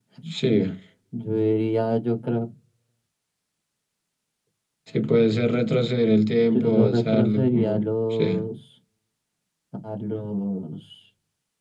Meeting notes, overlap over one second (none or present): present